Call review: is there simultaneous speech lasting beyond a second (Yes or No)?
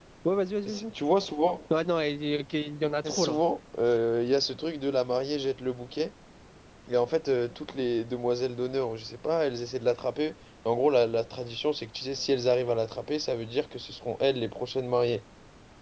No